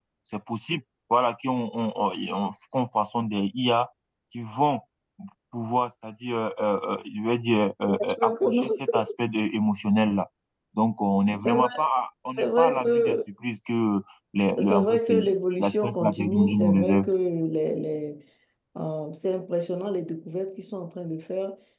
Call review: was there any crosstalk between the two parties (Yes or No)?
Yes